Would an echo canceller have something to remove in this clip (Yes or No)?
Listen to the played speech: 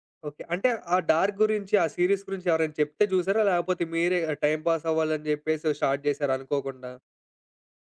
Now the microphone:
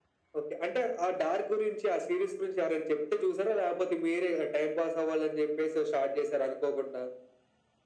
Yes